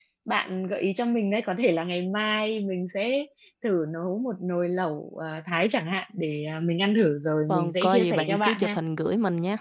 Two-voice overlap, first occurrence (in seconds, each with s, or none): 7.5 s